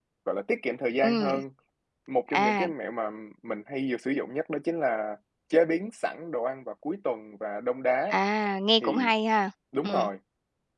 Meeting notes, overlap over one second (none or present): none